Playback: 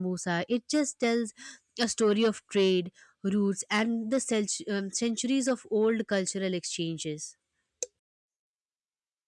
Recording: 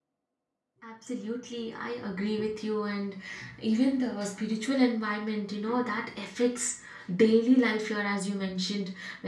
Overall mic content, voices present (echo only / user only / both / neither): user only